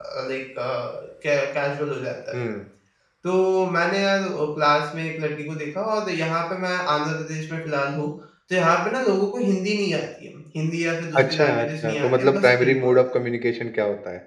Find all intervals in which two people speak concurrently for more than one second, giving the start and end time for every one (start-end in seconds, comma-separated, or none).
11.2-13.0